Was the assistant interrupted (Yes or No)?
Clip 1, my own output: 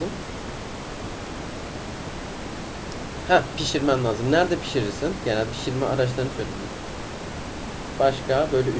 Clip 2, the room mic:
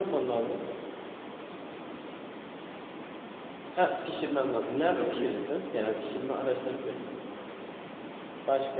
Yes